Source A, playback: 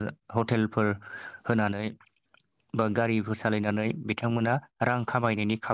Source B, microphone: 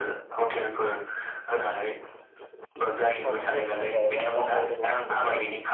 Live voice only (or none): सम होनायनि थाखाय बा गावनि रोंगौथिखौहाय